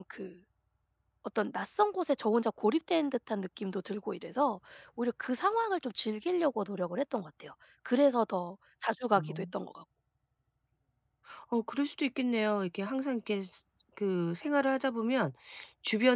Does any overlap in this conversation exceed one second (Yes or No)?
No